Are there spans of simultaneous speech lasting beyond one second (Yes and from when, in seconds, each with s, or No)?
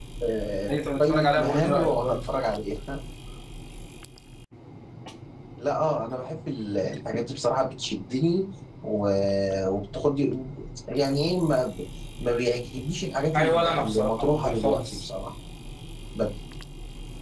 Yes, from 0.7 s